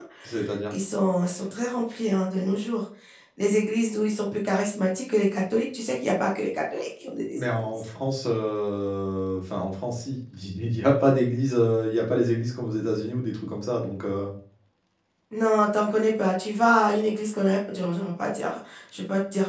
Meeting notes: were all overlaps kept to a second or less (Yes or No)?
Yes